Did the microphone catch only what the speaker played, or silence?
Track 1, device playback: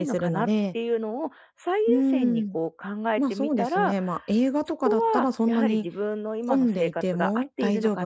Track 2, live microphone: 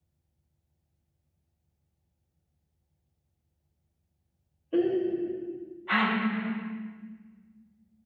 No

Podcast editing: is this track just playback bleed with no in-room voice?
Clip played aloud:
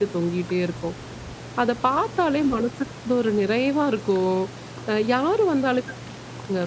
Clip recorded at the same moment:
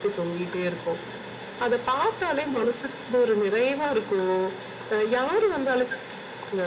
Yes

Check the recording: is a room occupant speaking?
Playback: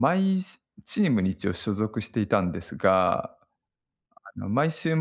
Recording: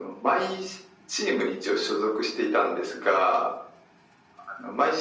No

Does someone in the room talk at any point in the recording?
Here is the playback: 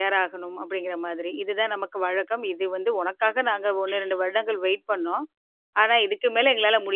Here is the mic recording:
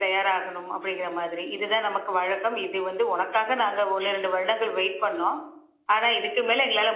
No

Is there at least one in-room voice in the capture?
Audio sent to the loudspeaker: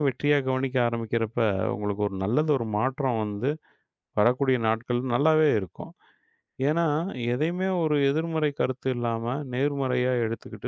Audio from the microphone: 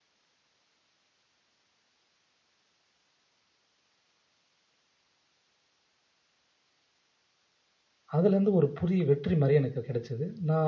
Yes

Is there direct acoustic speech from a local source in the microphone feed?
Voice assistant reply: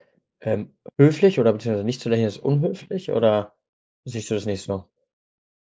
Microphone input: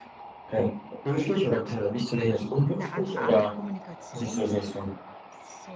Yes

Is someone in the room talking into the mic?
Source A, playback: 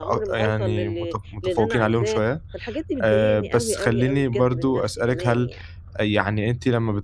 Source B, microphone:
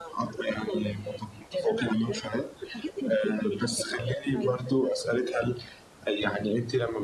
Yes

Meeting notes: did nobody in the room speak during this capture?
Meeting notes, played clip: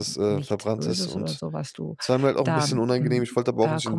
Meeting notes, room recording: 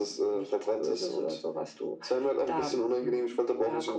Yes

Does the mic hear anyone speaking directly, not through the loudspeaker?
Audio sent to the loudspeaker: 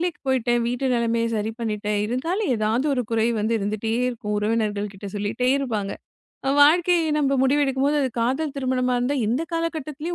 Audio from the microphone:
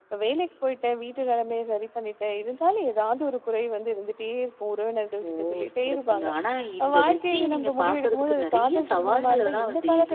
Yes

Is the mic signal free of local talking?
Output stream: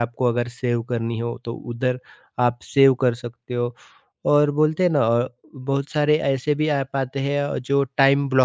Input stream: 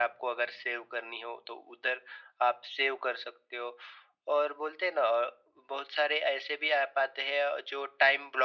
Yes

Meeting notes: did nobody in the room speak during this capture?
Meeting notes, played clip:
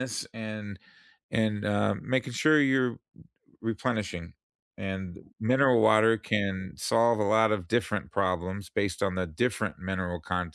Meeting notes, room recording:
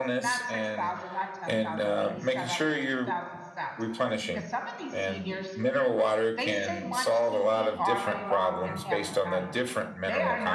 No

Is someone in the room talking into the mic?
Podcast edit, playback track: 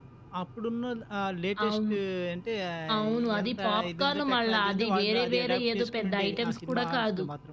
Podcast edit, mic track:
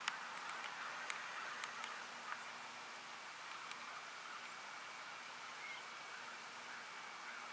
No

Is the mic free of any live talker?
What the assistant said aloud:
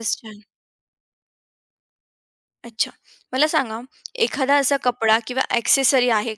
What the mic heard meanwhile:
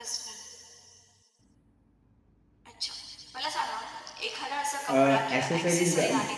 No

